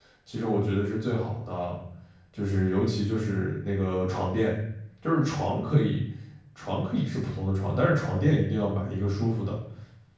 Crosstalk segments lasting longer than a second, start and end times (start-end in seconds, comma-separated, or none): none